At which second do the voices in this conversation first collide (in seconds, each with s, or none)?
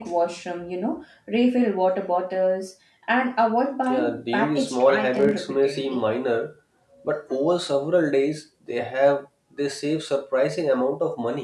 3.9 s